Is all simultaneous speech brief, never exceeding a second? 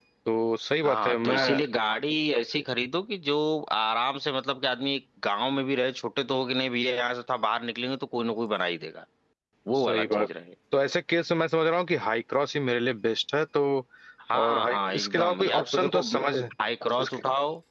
No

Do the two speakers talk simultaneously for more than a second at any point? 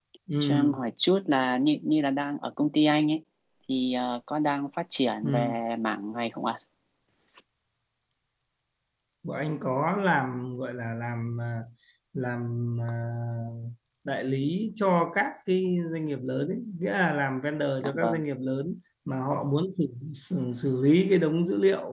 No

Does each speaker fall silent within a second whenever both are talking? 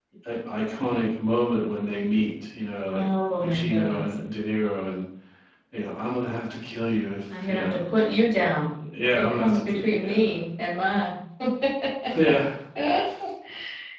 No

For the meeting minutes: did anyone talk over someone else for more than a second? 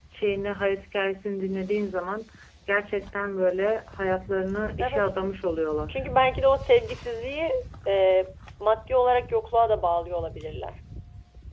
No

